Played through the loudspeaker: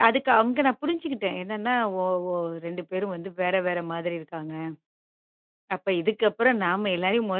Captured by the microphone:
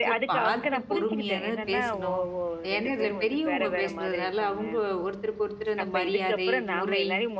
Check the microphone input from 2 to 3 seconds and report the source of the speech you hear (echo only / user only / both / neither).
both